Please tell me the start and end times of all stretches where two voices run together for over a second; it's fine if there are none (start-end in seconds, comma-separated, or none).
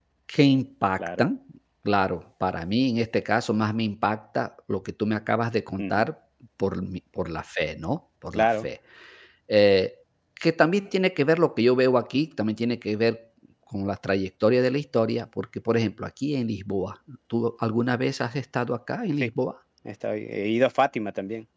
none